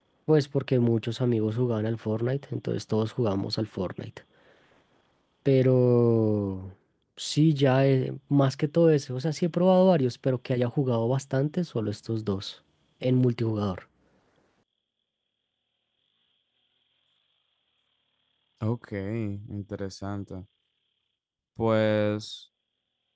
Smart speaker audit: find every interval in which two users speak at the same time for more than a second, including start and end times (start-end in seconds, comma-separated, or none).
none